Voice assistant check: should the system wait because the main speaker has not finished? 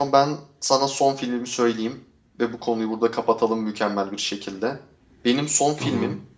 Yes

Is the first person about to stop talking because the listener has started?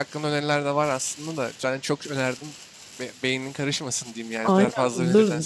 Yes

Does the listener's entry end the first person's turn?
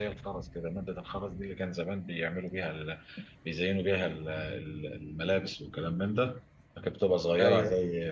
No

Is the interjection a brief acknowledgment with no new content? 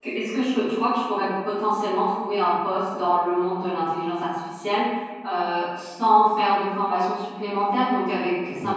Yes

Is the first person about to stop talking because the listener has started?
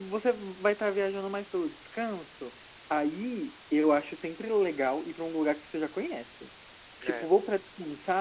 No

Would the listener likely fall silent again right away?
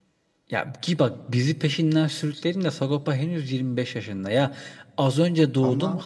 Yes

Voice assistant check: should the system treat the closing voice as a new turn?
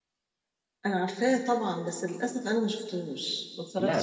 Yes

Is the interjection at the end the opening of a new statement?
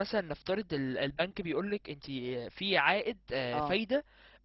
No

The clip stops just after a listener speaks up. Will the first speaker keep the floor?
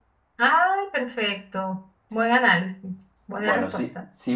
No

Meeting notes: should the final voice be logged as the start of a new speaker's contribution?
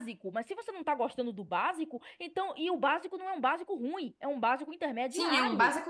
Yes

